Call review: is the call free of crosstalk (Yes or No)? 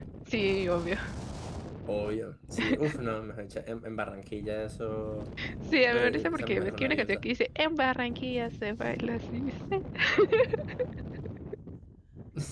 No